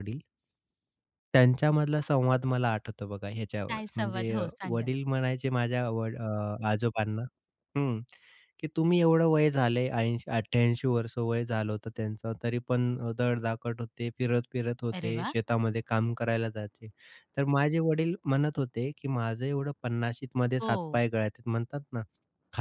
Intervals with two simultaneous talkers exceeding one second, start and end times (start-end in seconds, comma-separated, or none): 3.7-4.9